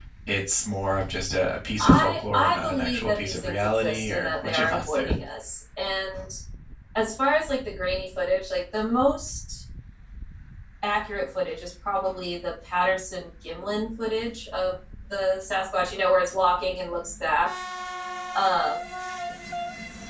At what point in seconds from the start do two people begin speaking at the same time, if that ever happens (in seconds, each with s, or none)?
1.8 s